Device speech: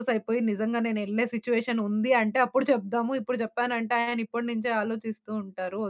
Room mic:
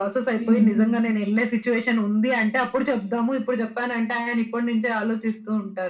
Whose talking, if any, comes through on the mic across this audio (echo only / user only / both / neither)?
both